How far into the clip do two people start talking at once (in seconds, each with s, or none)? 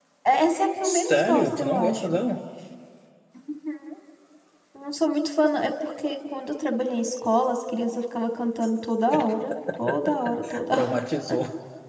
0.8 s